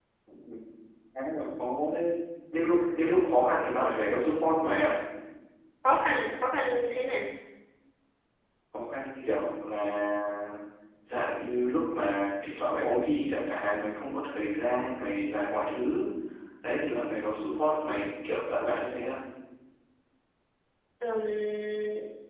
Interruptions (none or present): none